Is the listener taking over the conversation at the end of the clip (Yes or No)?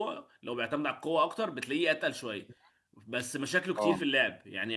No